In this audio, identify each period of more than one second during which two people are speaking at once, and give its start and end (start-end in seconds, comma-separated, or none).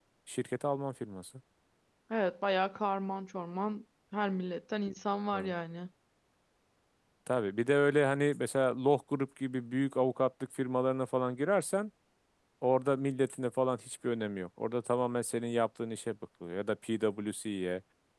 none